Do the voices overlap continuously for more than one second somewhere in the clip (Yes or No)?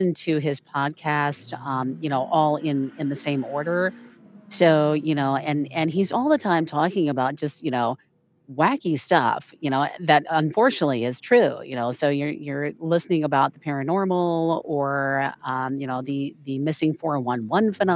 No